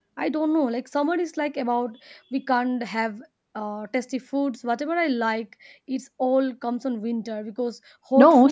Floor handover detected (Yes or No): Yes